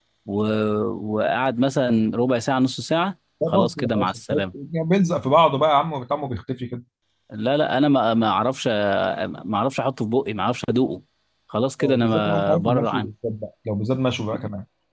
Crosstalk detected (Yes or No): Yes